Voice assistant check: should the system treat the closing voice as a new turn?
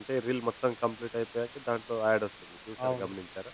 Yes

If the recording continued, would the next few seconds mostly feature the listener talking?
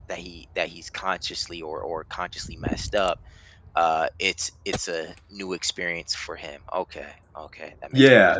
Yes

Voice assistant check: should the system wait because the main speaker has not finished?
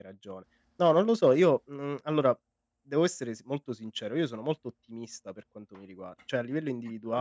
Yes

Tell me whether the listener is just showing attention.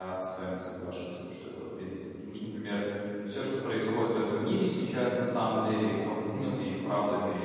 Yes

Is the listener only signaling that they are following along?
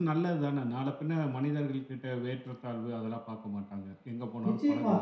No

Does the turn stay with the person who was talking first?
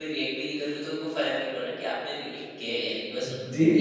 No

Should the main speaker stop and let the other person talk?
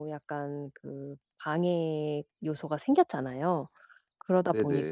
No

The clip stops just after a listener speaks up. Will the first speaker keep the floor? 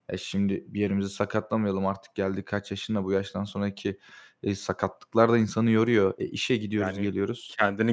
No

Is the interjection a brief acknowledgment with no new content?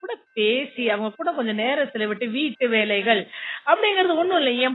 Yes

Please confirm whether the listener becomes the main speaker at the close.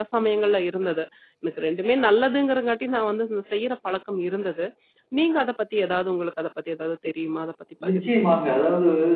Yes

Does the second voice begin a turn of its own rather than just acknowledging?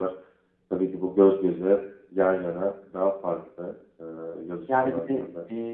Yes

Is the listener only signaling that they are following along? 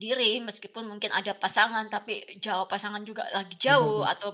Yes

